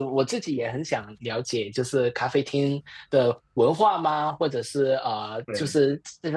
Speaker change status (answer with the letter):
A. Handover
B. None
B